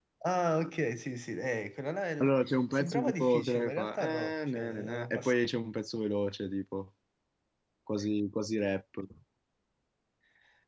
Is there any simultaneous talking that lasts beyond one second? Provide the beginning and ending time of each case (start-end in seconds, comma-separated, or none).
2.7-5.3